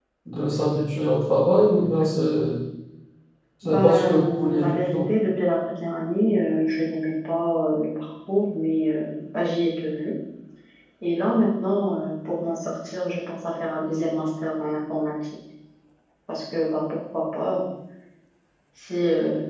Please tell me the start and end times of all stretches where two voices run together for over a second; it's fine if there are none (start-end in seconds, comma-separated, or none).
3.6-5.1